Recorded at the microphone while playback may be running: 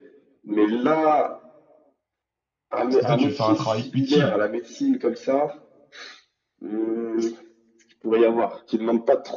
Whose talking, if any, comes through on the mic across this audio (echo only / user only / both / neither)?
both